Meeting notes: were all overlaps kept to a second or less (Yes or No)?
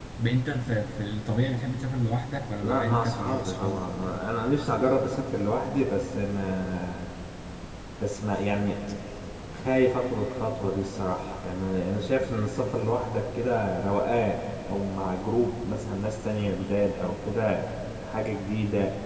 No